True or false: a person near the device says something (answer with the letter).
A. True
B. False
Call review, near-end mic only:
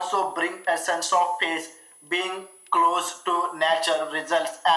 B